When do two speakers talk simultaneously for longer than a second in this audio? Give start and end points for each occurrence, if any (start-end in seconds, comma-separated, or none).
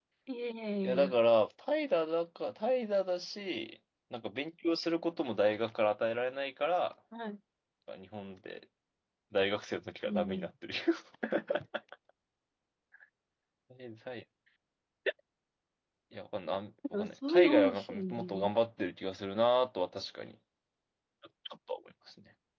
16.9-18.5